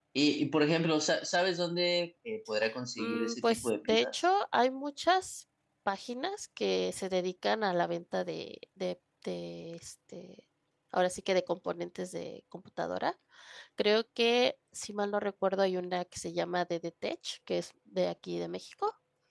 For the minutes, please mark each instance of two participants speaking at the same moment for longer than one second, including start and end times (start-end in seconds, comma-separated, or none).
3.0-4.2